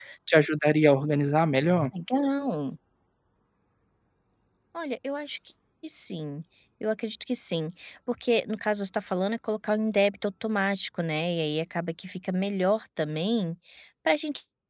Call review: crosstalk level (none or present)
none